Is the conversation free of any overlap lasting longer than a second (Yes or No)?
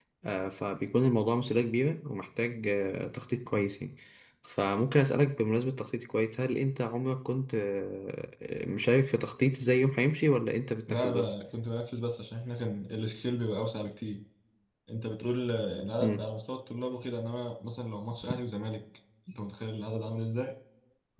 Yes